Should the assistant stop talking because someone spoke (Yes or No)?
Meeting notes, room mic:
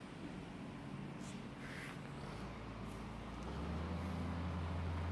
No